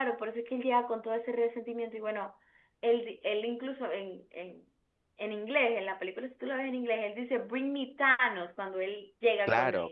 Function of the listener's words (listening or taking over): taking over